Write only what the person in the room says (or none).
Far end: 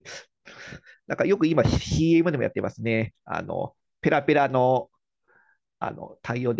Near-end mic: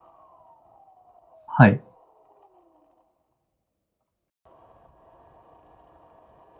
はい。